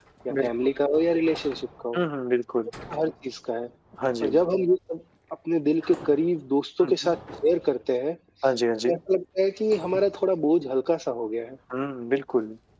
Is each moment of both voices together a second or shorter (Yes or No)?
Yes